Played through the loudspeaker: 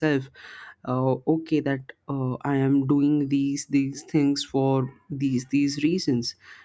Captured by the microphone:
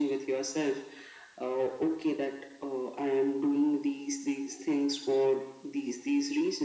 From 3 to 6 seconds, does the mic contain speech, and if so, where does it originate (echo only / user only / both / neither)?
echo only